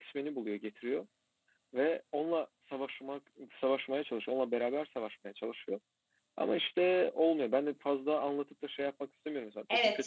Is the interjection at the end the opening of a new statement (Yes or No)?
Yes